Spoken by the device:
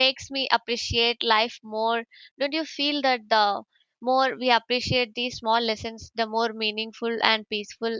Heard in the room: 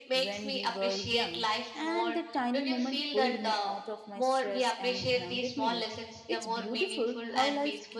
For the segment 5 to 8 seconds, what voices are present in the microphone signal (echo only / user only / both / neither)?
both